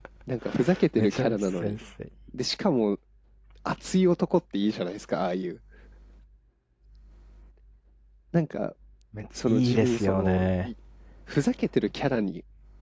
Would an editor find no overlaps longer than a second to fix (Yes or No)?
No